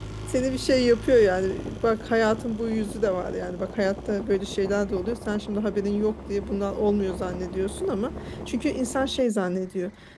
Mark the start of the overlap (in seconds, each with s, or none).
none